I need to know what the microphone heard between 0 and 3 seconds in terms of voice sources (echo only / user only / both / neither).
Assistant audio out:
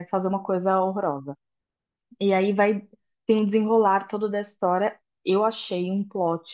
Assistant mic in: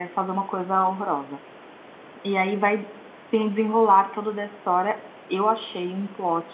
echo only